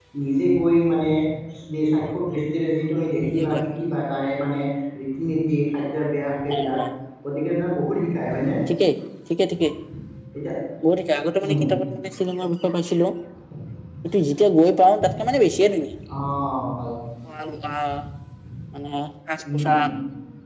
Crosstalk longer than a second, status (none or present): none